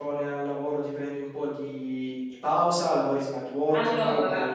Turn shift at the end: Yes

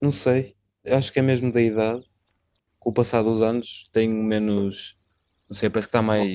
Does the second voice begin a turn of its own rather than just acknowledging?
No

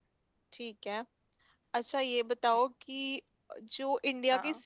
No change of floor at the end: Yes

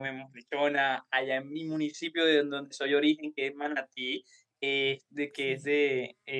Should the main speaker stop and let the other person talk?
No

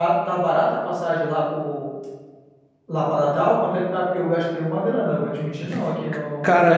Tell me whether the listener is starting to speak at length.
Yes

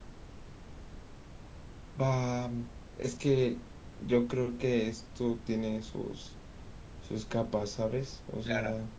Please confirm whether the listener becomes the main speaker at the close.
Yes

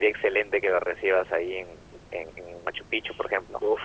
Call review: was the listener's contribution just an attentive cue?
No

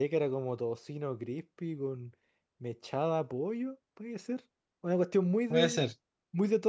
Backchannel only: Yes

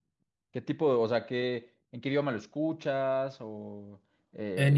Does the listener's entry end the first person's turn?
Yes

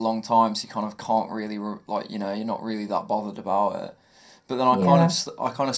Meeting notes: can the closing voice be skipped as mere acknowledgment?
Yes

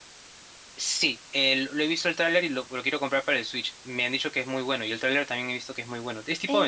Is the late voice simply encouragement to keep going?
No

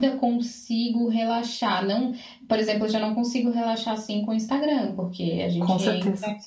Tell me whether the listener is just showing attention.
Yes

